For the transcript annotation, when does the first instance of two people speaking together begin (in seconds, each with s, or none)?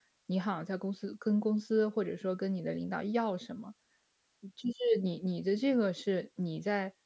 none